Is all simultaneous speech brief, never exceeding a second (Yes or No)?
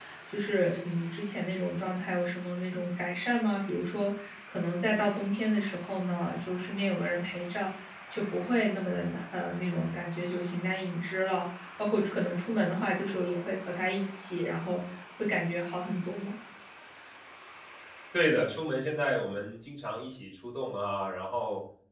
Yes